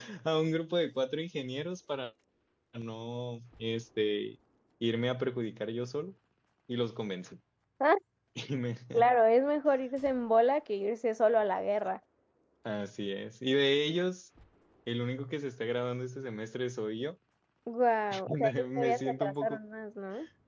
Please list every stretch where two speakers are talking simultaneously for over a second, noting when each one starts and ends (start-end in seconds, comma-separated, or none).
18.3-19.6